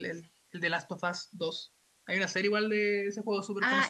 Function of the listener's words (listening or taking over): taking over